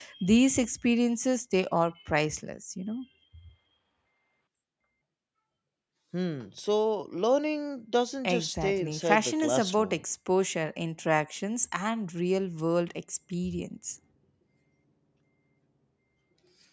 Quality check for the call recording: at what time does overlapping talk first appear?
8.2 s

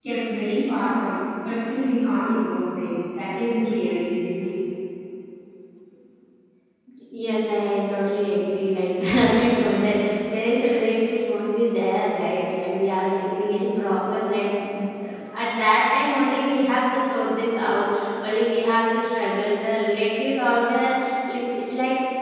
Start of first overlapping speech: none

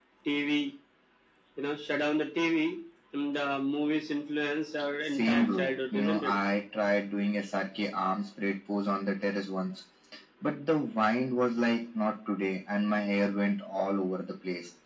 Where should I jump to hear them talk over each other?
5.0 s

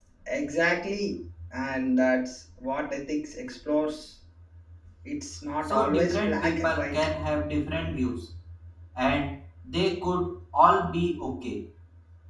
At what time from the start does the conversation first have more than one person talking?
5.6 s

